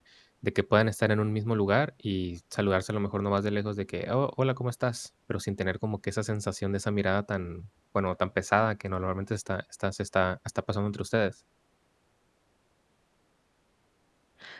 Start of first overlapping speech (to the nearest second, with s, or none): none